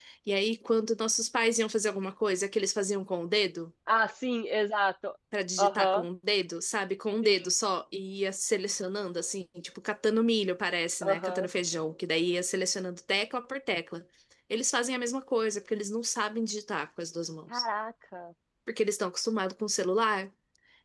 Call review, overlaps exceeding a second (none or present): none